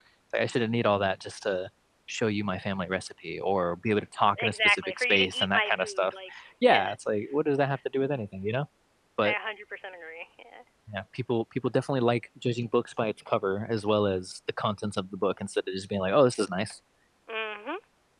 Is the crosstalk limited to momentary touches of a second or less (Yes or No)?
No